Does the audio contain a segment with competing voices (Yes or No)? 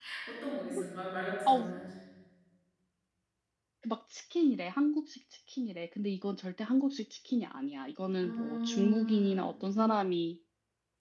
Yes